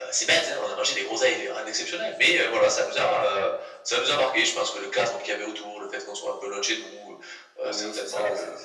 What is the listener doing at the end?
taking over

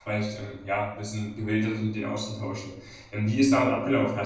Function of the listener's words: listening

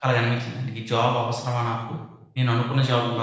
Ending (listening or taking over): listening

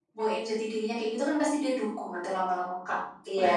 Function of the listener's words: taking over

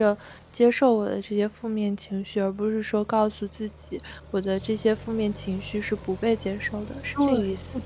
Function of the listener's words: taking over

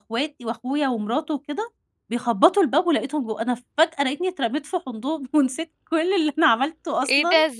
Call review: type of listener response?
taking over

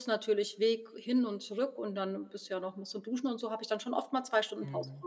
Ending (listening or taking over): taking over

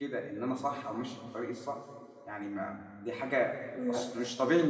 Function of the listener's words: listening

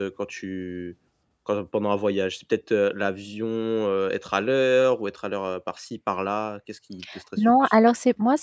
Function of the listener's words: taking over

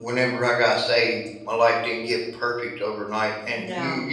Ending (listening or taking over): listening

